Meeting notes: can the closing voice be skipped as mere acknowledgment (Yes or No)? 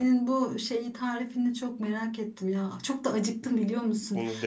Yes